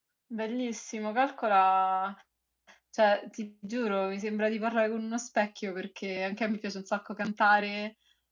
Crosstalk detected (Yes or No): No